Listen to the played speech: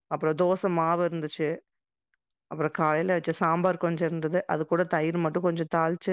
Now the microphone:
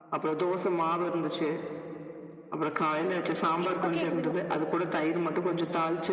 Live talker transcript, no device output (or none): இப்ப கேக்குதுங்ளா